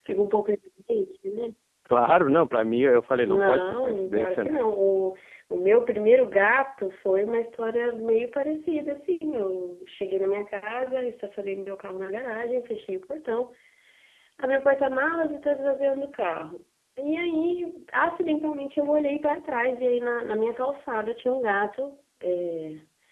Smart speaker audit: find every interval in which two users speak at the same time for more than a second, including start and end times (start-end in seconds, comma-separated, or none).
3.3-4.5